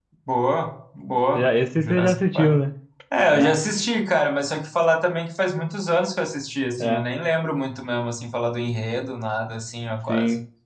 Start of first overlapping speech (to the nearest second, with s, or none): 1 s